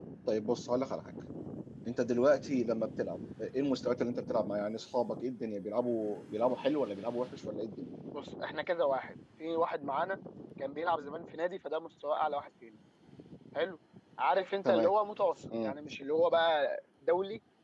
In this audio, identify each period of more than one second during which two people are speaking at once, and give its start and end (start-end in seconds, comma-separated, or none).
none